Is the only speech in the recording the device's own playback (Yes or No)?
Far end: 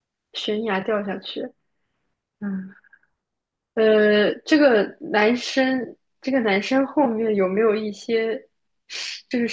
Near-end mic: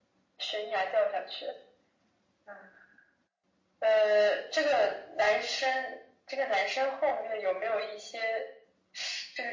Yes